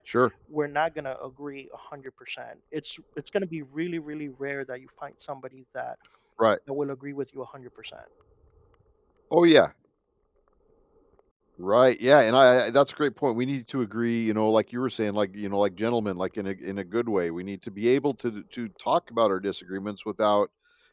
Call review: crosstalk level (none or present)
none